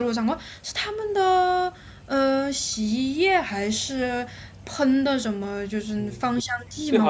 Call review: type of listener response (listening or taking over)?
taking over